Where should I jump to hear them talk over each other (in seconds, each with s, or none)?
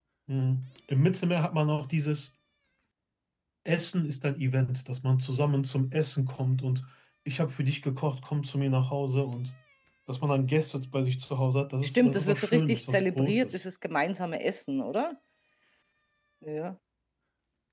11.8 s